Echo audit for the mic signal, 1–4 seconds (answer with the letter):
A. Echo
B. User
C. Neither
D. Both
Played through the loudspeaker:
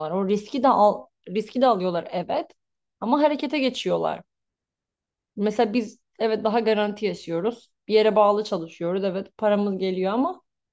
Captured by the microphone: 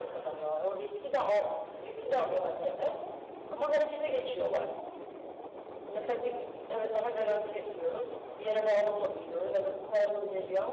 A